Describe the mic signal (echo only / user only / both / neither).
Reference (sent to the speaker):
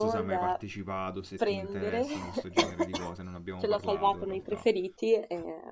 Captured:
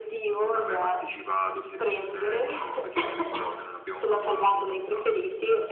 echo only